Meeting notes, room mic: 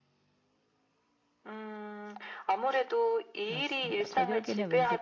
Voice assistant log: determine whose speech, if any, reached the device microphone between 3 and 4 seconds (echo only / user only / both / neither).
both